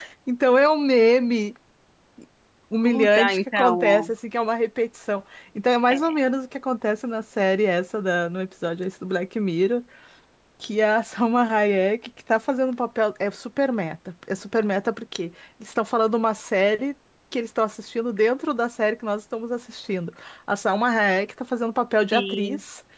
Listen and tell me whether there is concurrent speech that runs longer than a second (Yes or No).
Yes